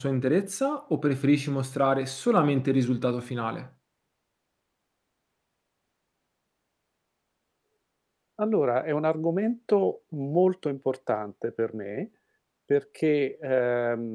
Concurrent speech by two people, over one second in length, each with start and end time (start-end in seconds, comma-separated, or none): none